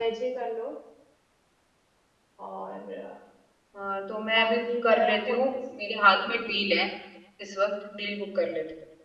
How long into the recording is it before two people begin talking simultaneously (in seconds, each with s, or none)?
4.3 s